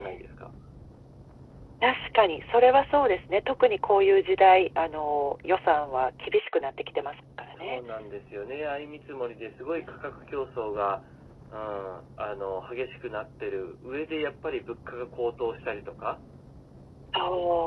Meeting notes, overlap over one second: none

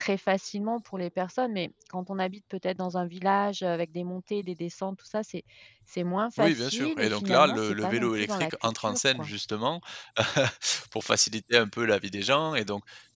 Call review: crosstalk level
present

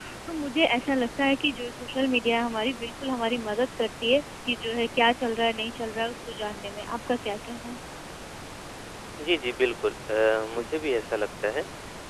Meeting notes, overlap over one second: none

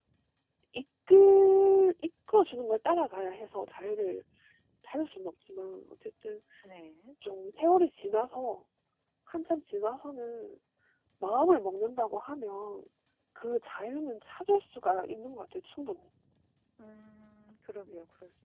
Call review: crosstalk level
none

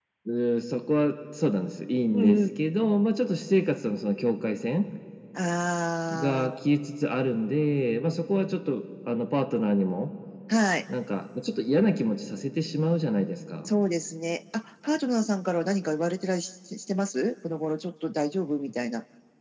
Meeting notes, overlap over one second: none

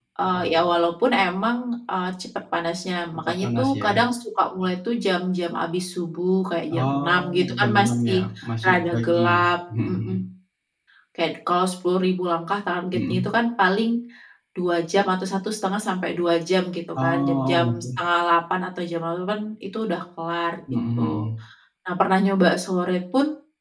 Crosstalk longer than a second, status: present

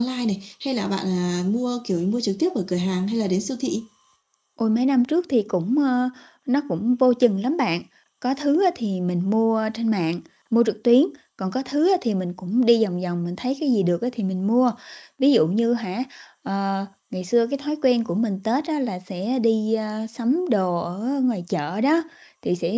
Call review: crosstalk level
none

